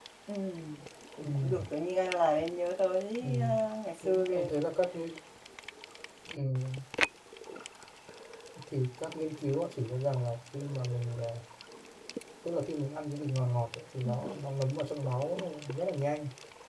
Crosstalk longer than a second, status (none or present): none